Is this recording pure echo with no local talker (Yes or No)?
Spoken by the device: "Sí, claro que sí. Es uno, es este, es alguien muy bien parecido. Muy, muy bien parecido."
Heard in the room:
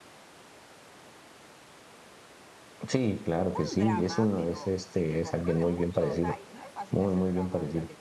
No